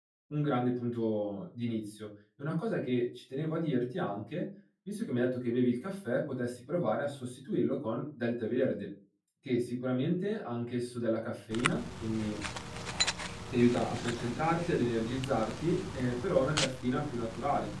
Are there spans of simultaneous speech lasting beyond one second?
No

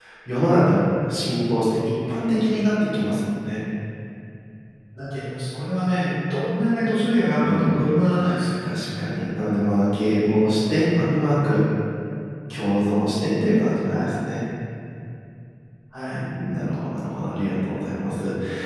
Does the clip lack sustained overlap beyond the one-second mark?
Yes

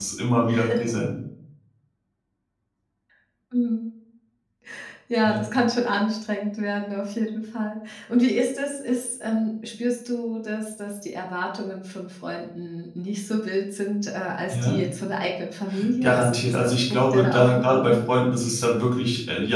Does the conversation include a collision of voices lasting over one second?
Yes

